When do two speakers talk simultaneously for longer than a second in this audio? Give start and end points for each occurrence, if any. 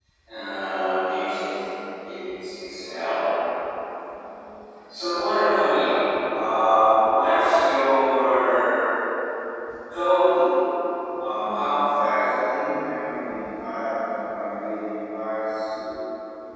11.2-12.4

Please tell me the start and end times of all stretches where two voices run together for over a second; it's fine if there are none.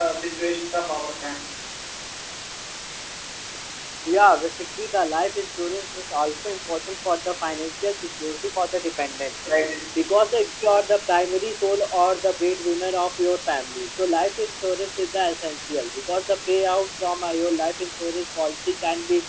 none

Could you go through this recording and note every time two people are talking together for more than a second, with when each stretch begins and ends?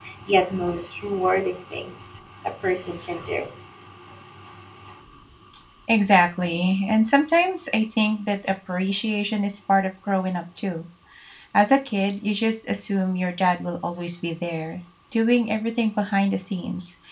none

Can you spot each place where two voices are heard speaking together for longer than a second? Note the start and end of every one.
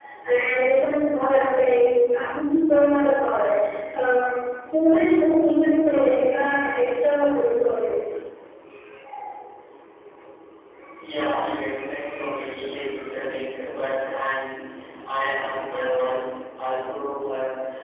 none

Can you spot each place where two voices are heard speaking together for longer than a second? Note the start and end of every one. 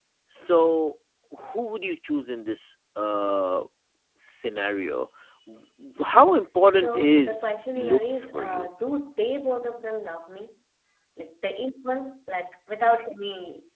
6.7-8.7

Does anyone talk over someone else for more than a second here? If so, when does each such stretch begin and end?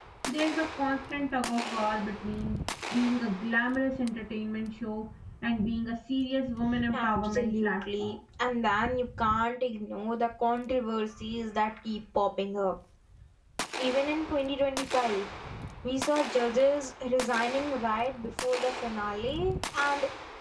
6.9-8.2

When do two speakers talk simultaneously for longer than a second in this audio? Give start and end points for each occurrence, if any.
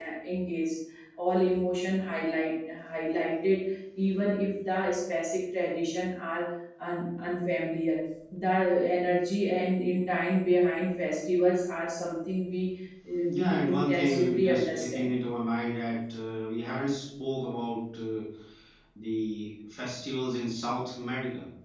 13.3-15.1

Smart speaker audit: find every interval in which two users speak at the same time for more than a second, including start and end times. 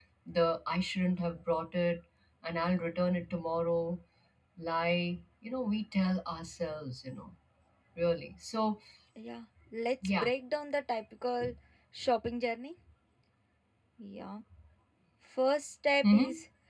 none

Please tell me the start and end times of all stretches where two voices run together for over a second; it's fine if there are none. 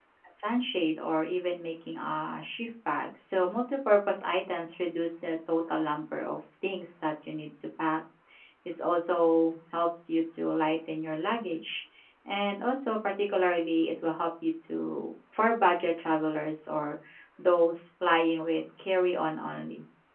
none

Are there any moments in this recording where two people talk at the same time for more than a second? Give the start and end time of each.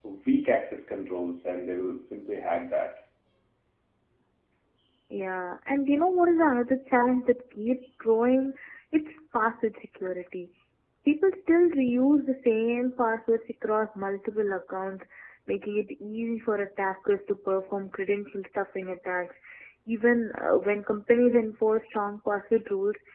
none

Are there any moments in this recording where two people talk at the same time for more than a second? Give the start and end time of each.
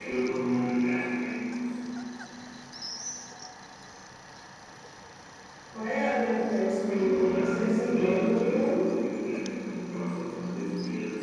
6.9-8.8

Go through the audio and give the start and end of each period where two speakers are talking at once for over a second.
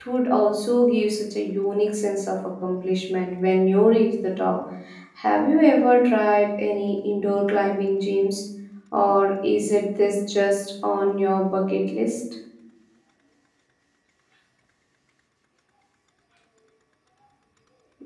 none

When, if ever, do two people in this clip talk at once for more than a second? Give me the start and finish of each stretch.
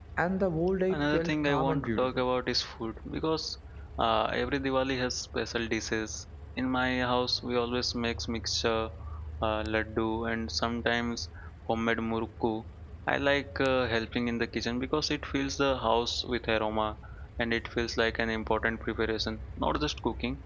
0.9-2.2

